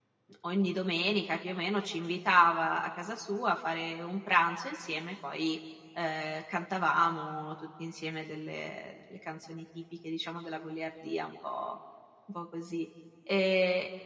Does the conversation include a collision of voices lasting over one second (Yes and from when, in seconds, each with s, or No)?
No